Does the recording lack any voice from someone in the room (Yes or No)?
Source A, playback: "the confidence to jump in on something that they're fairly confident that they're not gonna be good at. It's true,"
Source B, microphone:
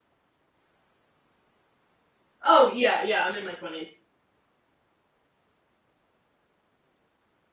No